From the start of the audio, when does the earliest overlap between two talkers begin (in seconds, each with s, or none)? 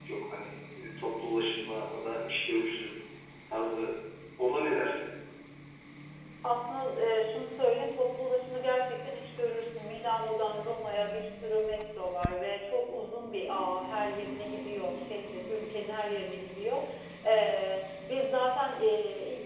none